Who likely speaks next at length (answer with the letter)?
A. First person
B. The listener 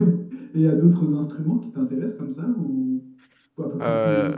A